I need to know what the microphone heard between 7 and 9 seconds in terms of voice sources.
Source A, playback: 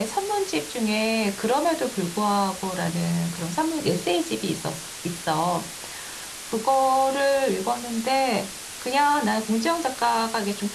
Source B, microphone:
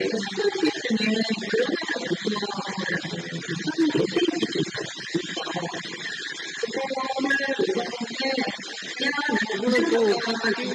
echo only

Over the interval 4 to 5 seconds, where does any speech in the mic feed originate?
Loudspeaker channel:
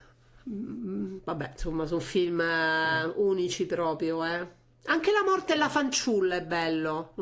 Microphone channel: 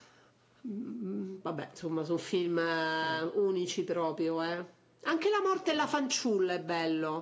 echo only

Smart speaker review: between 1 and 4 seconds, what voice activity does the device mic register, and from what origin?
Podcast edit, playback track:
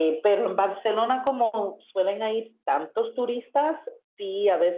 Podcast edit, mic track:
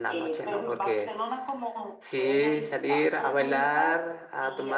both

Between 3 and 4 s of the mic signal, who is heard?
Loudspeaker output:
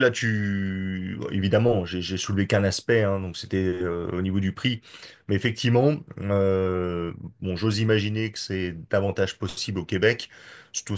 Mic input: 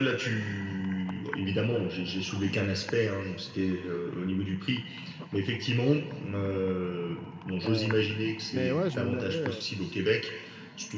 echo only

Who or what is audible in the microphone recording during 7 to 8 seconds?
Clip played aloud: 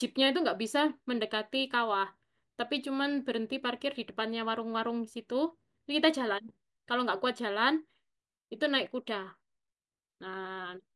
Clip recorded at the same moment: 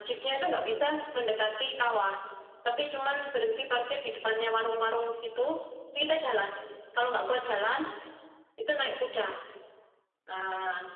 echo only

